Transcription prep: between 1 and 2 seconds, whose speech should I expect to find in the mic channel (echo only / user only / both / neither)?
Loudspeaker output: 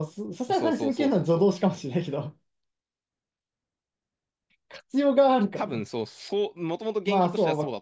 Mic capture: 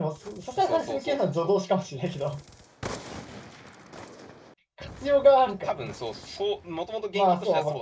echo only